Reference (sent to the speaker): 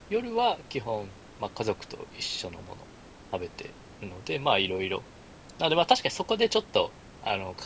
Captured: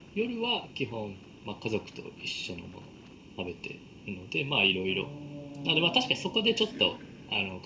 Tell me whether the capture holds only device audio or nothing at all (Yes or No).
No